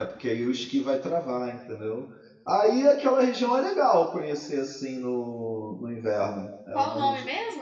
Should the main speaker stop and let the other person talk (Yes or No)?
Yes